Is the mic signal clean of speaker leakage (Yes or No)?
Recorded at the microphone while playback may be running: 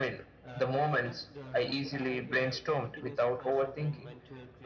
No